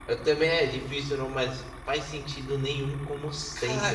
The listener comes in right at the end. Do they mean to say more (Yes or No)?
Yes